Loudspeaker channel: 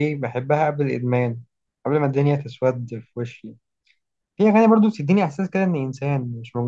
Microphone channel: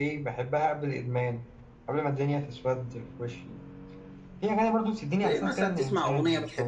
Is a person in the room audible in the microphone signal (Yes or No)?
Yes